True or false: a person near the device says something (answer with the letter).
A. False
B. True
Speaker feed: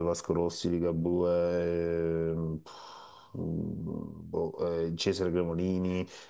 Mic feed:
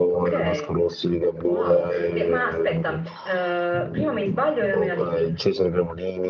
B